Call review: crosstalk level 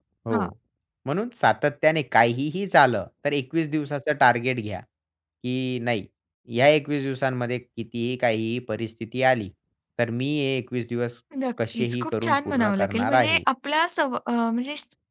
present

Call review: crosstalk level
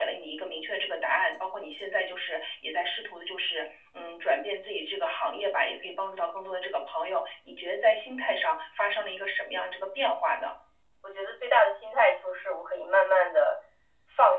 none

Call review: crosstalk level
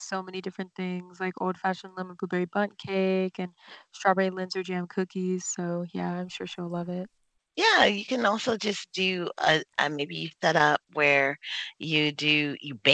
none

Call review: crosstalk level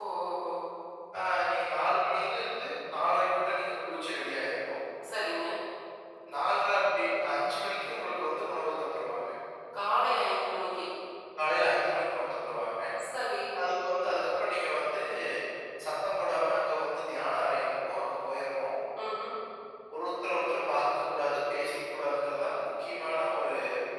none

